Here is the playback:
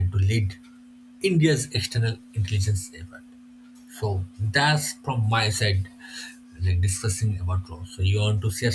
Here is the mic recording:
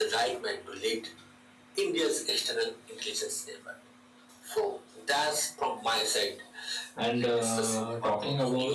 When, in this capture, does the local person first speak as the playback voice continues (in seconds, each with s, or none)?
7.0 s